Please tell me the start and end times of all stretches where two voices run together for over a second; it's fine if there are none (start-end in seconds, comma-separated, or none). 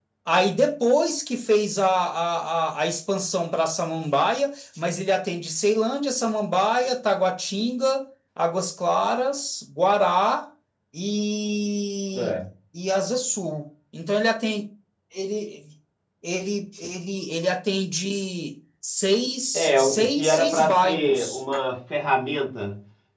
19.5-21.4